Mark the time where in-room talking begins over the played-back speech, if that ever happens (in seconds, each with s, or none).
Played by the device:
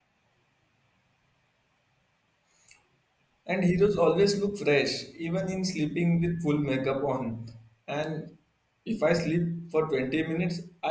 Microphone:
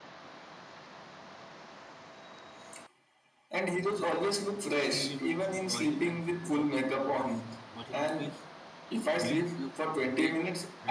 4.8 s